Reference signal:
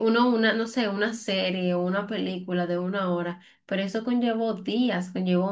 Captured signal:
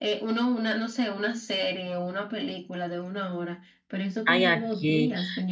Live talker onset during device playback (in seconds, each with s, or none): 4.2 s